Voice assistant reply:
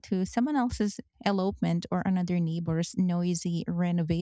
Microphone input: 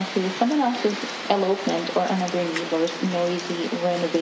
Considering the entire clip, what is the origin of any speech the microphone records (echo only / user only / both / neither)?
echo only